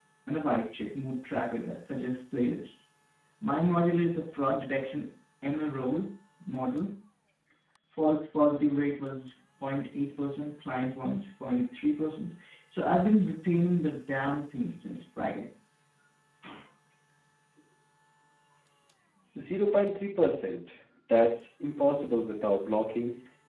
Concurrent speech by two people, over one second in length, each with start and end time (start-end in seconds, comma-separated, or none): none